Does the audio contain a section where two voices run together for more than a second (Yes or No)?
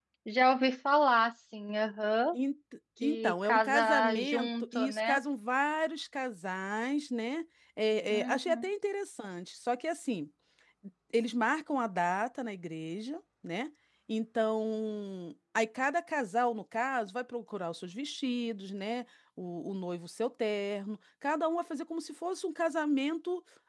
Yes